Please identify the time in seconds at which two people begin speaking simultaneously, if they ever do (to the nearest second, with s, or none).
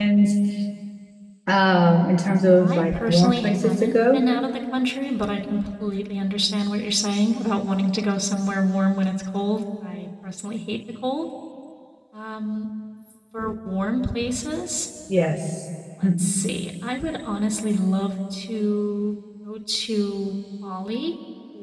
3 s